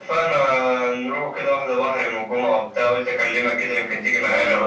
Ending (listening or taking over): taking over